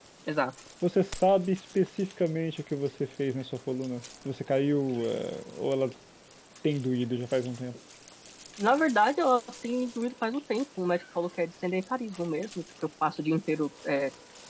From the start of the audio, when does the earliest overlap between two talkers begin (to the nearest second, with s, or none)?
none